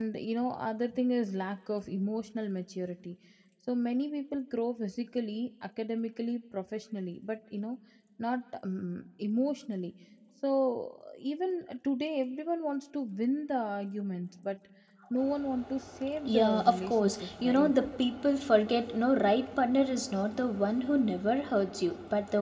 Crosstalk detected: Yes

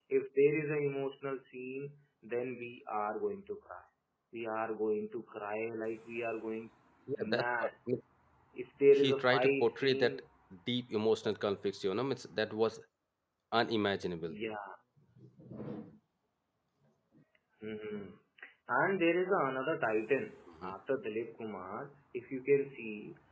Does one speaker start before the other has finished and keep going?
Yes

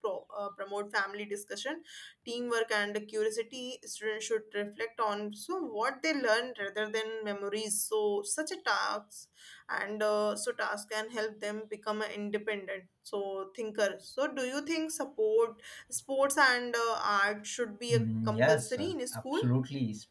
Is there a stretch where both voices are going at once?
Yes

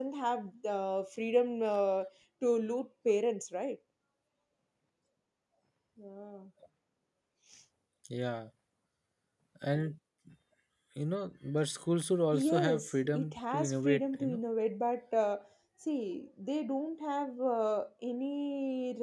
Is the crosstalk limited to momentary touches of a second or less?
No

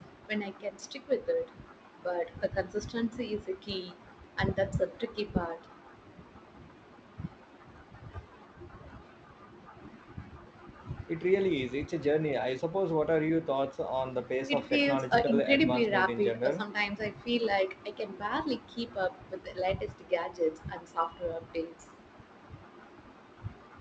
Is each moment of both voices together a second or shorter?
No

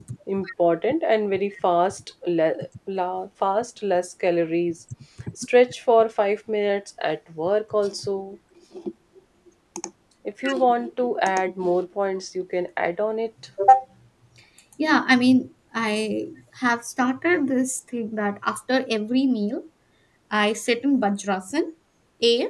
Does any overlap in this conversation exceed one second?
No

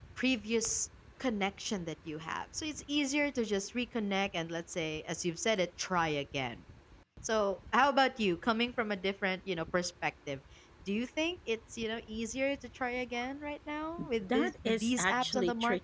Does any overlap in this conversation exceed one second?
Yes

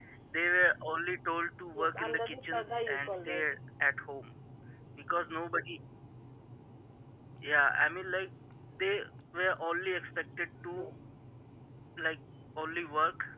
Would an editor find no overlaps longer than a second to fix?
No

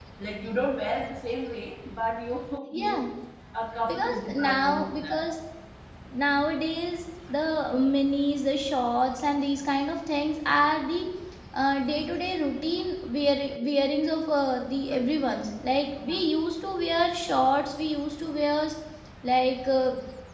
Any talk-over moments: Yes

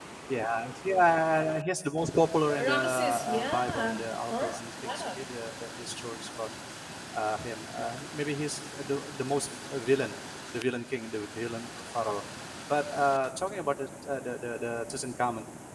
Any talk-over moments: Yes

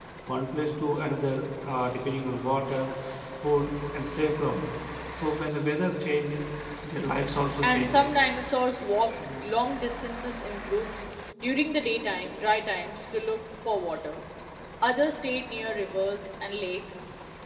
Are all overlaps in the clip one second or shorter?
Yes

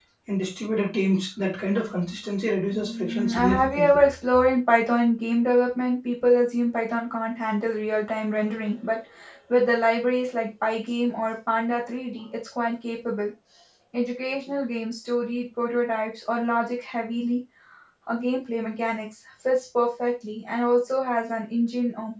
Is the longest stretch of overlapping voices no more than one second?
No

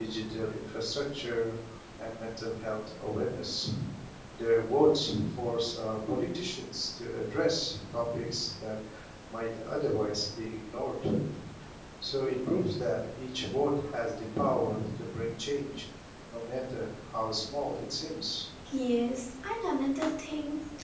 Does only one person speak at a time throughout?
Yes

